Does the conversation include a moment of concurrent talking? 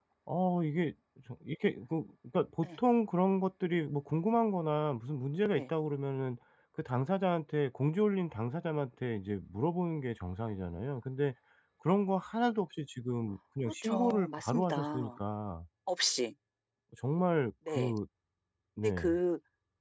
Yes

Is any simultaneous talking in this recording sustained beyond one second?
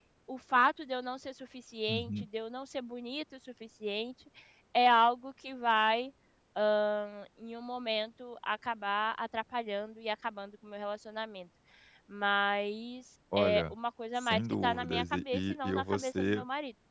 Yes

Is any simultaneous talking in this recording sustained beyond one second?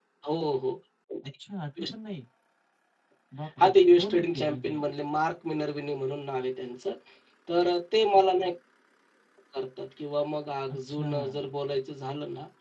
Yes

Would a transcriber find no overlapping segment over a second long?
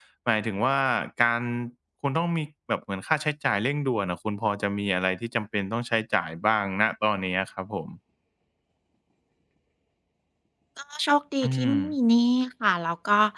Yes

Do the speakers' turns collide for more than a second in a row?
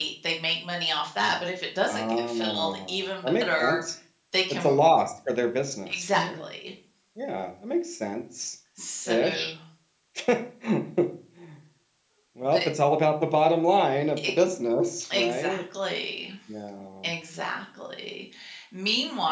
Yes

